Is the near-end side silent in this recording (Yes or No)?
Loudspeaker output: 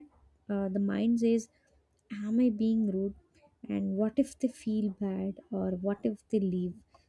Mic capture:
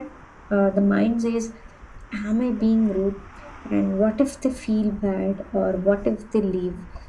Yes